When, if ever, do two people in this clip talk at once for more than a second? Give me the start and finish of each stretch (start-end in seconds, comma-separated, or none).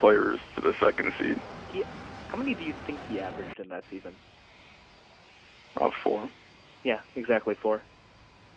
none